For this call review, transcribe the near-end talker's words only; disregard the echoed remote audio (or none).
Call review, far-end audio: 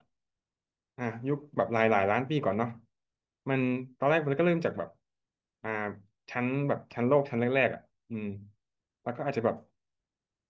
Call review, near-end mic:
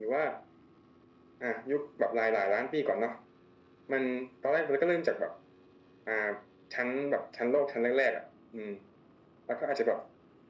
none